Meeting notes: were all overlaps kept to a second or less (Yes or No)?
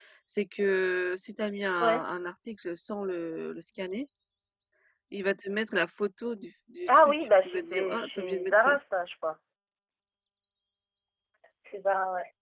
No